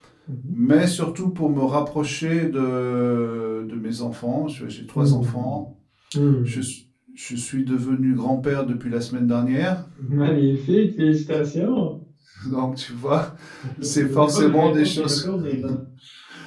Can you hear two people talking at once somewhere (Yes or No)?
Yes